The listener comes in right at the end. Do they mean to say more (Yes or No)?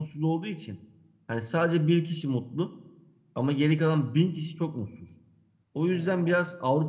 No